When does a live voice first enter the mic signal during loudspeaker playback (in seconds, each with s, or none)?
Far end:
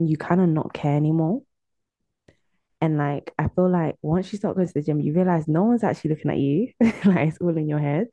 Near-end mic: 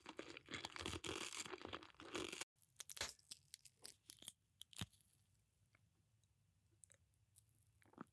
none